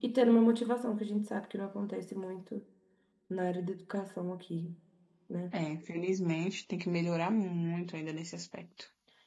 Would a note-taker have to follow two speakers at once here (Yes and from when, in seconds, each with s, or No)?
No